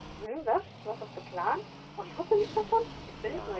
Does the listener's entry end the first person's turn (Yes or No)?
Yes